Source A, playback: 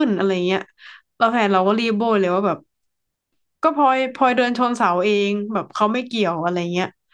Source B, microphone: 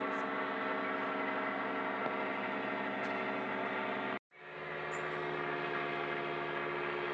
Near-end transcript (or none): none